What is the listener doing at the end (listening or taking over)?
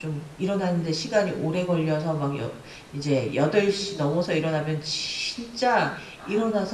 listening